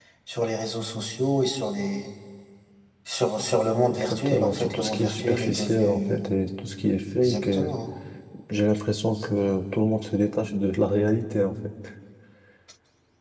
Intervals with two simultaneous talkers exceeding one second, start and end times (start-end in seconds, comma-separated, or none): 3.9-6.3